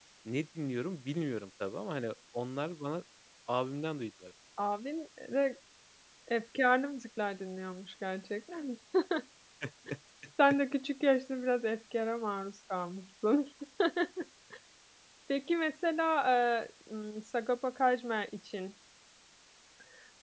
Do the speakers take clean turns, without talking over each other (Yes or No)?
Yes